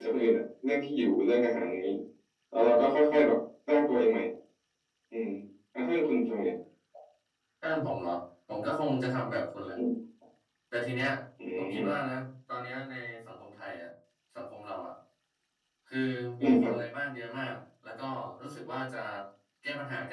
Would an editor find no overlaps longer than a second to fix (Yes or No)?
Yes